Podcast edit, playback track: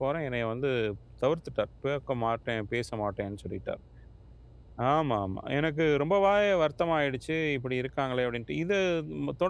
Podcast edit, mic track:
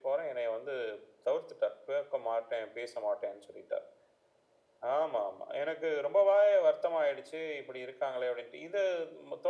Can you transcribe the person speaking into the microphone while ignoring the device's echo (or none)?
none